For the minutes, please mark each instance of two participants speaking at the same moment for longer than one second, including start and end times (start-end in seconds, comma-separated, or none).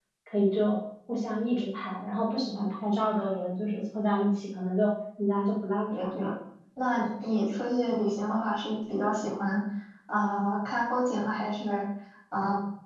none